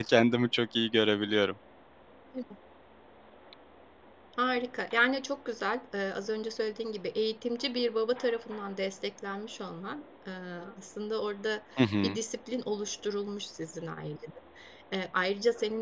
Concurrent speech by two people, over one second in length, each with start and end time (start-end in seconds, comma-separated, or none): none